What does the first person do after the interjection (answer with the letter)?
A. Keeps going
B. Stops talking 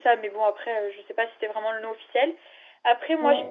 A